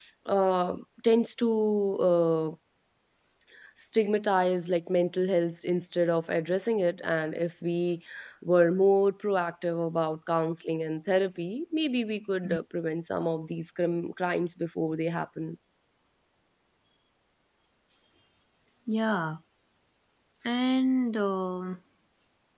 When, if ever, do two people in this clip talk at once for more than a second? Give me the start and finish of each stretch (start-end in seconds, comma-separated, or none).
none